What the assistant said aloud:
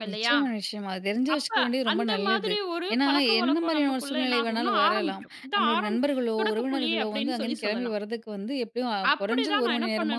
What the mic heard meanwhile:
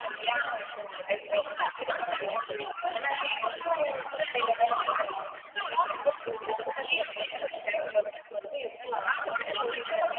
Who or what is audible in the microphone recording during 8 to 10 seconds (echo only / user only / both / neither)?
echo only